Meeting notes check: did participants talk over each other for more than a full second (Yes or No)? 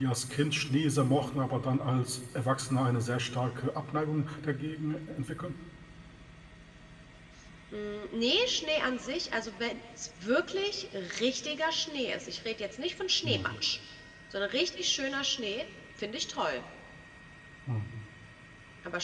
No